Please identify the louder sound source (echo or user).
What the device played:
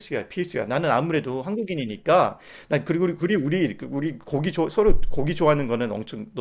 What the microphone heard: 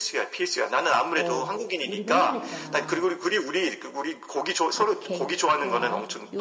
echo